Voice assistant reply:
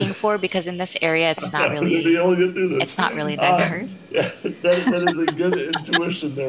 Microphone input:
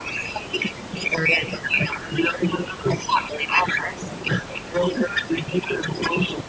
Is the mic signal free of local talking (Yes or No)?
Yes